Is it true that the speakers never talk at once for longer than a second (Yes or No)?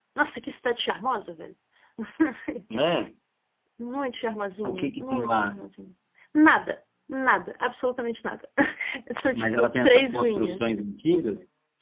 No